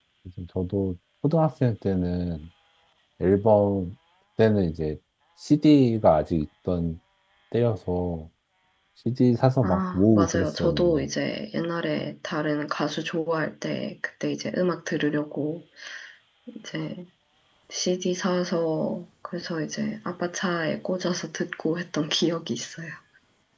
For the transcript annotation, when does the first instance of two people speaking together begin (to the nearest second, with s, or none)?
10 s